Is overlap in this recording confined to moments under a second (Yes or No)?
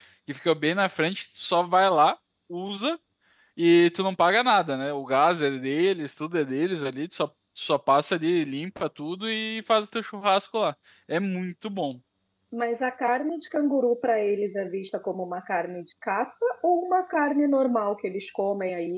Yes